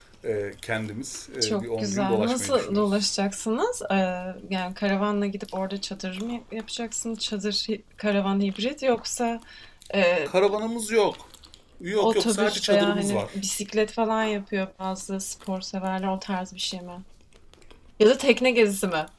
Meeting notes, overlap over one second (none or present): present